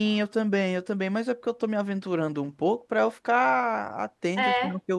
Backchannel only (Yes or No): Yes